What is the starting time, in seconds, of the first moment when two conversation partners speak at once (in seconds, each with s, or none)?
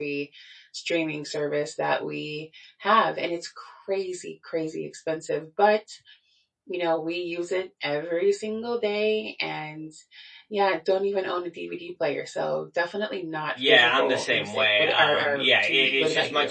13.6 s